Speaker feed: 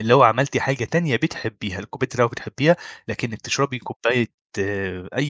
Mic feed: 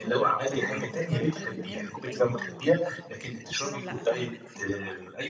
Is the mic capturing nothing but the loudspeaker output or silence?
No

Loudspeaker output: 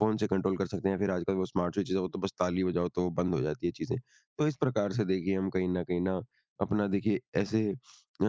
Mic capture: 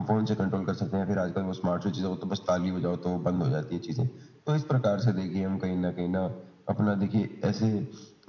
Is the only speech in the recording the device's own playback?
Yes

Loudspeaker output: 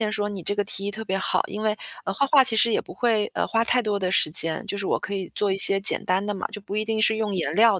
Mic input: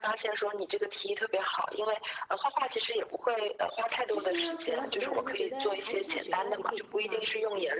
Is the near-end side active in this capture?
Yes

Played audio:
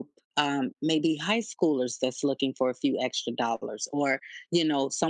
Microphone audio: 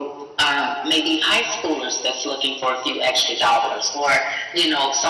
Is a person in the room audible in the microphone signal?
No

